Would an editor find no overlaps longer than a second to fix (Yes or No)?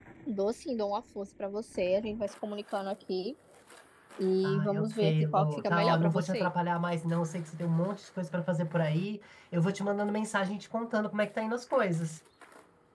No